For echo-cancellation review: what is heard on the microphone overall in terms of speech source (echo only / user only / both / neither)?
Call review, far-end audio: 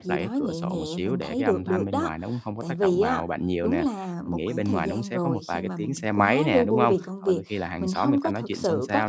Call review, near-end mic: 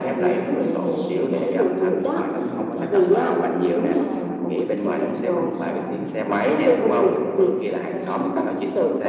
echo only